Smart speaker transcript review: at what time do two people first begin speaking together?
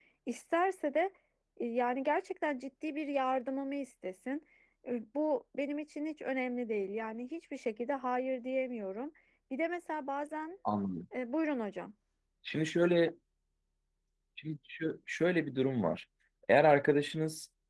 none

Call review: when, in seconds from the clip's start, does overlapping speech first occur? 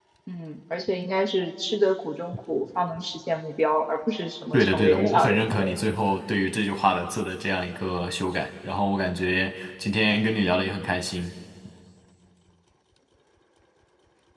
4.5 s

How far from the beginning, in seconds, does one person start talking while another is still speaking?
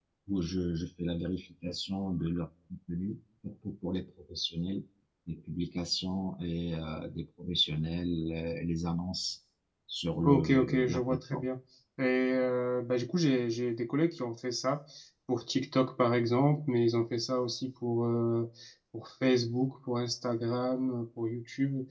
10.2 s

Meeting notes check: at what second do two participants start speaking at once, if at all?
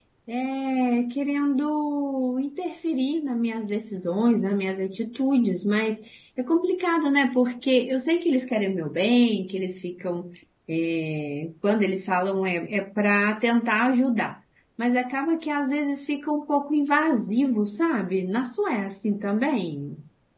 none

